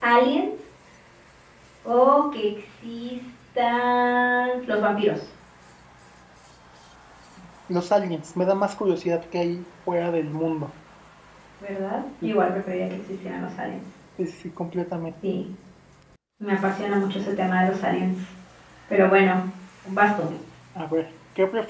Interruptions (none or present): none